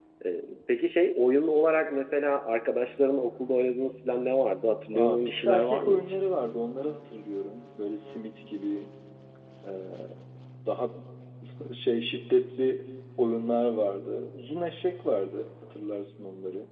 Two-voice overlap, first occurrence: 4.9 s

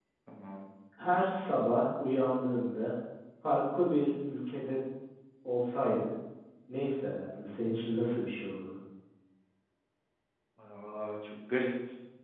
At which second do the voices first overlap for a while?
none

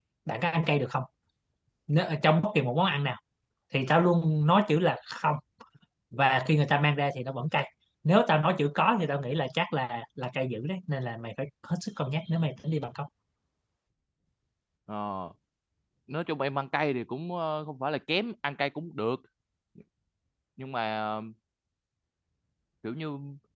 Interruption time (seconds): none

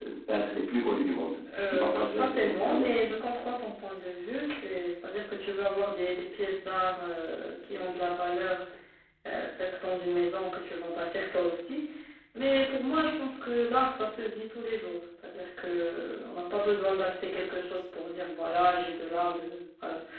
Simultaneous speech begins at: 1.5 s

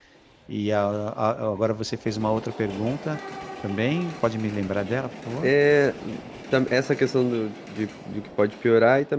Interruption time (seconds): none

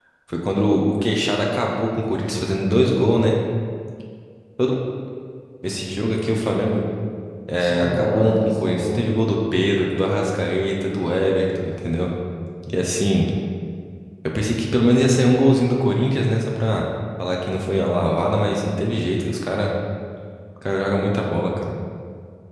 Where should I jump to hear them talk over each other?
7.6 s

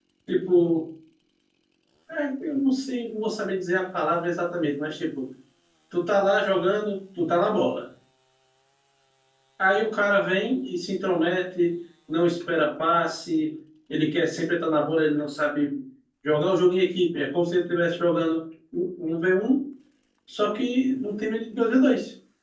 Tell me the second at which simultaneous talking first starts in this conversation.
none

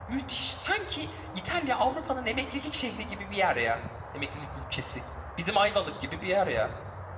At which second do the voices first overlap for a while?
none

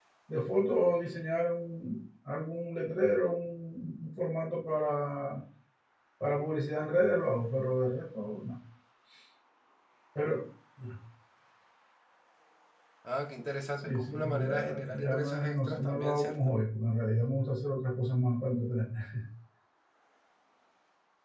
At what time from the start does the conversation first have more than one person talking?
13.8 s

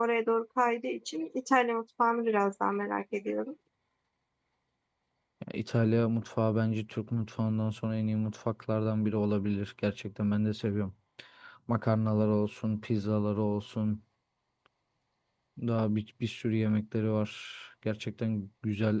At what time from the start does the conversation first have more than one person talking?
none

